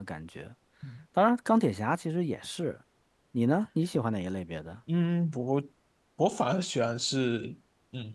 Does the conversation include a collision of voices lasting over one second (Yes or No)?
No